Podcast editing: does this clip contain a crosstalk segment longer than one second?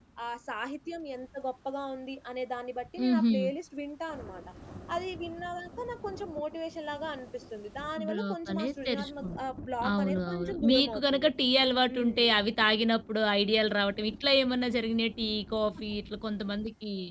Yes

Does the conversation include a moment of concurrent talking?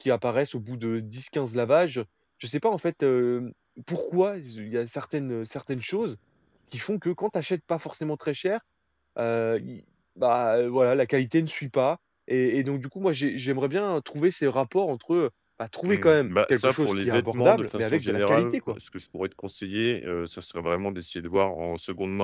Yes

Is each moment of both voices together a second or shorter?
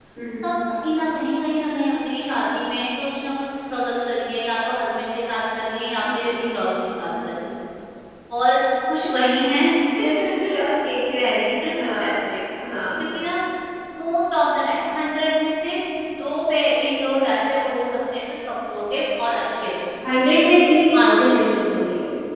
Yes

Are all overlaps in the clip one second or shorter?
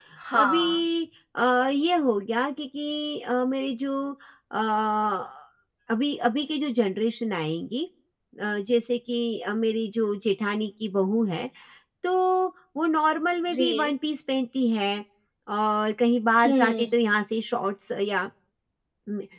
Yes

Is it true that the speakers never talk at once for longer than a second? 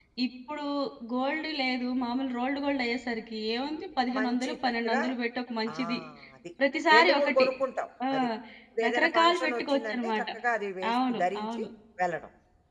No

